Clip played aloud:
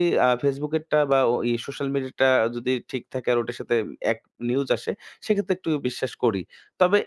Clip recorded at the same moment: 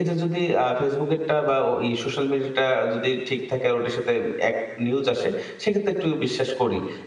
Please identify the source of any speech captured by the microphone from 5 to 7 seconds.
echo only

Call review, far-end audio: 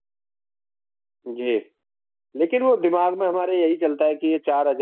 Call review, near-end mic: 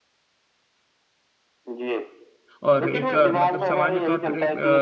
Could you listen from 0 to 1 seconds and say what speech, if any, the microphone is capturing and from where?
neither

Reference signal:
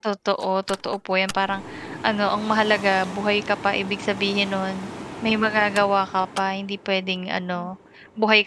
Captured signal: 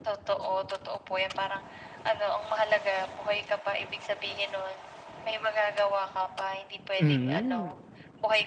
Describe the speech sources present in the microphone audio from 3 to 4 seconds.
echo only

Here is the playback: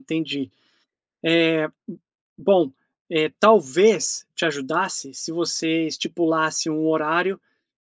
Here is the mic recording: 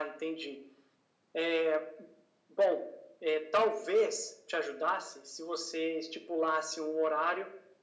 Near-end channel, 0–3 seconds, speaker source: echo only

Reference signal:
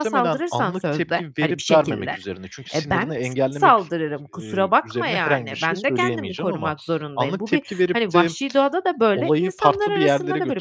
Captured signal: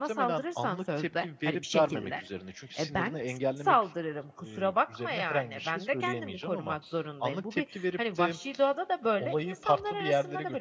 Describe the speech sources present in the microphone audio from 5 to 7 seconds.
echo only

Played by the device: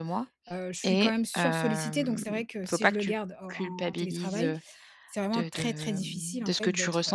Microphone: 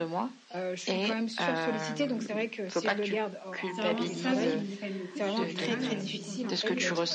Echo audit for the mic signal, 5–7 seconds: both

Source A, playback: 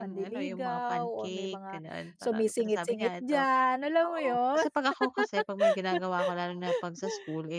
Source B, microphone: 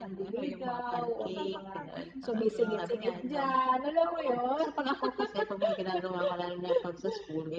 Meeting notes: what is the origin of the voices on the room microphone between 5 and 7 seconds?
echo only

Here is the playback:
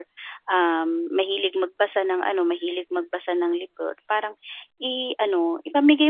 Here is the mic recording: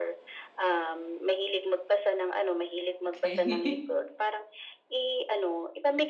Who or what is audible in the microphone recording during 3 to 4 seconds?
both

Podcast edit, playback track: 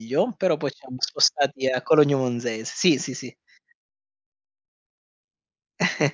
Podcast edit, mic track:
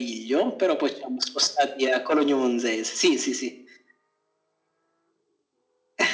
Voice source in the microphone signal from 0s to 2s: echo only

